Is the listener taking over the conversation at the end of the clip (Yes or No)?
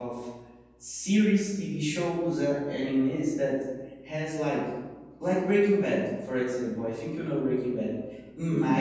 No